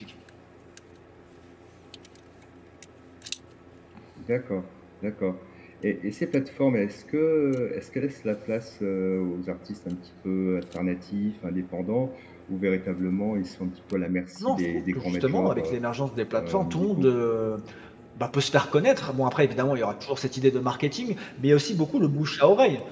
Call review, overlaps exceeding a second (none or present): present